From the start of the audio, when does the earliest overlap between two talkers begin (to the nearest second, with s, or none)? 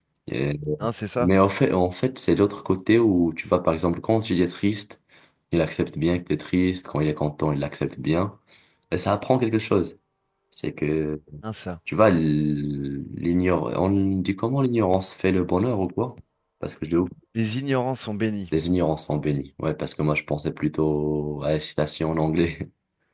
none